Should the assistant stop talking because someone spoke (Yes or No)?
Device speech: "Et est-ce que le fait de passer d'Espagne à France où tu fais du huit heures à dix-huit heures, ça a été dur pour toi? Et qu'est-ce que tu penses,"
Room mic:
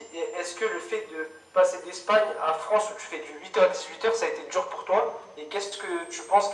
No